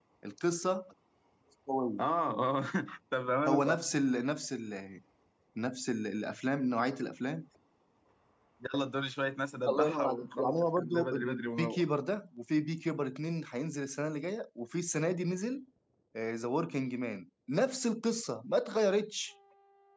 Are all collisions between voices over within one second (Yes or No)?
No